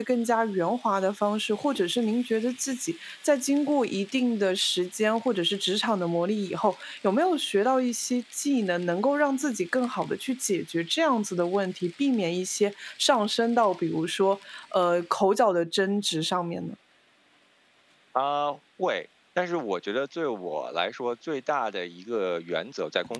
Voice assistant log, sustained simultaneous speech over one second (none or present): none